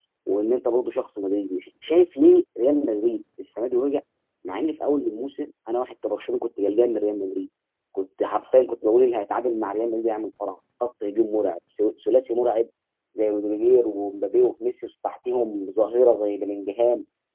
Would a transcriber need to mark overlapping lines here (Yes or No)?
No